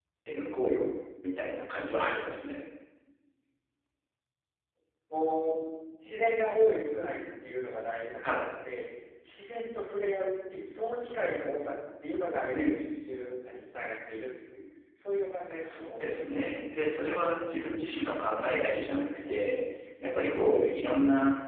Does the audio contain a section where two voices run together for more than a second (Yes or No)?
No